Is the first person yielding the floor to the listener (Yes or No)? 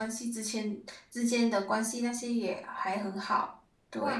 Yes